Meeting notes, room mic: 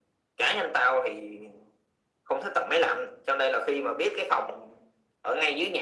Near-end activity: none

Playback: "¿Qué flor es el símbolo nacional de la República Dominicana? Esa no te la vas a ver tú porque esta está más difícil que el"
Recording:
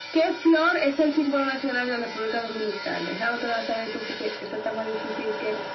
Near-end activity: none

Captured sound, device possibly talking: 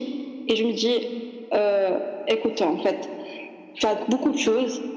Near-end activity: none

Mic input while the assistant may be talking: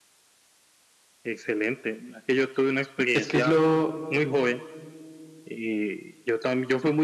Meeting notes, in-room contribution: present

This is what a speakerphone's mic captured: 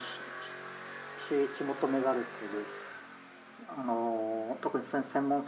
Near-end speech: none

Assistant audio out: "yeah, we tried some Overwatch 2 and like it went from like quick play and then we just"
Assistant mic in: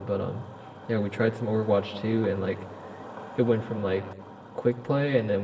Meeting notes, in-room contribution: none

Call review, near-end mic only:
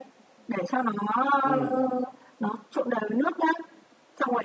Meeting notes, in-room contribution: present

